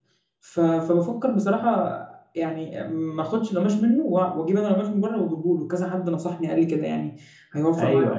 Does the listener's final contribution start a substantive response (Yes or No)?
Yes